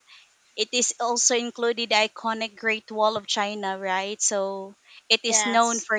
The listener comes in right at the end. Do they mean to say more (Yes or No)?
No